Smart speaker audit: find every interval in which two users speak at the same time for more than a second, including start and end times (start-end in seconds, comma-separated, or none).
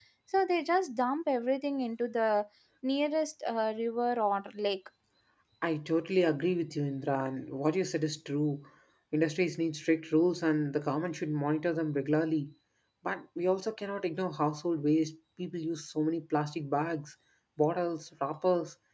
none